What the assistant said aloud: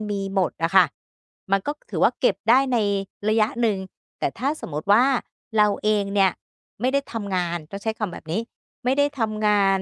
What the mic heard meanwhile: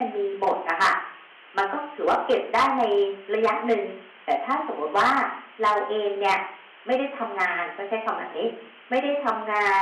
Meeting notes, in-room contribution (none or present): none